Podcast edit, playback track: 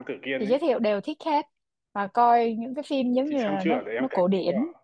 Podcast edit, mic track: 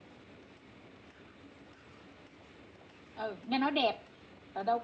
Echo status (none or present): none